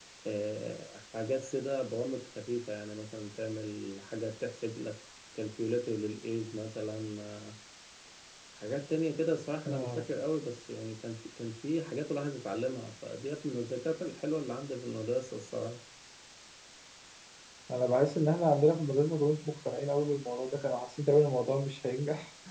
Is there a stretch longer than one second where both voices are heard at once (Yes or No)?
No